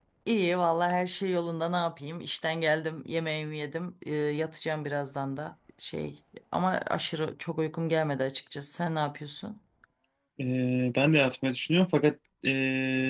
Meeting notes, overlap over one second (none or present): none